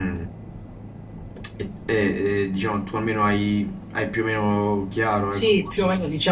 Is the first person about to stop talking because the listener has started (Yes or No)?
Yes